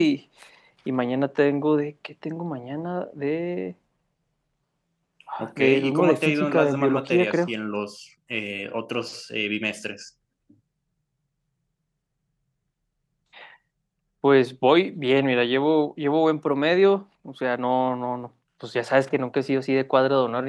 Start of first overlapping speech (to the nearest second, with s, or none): 5 s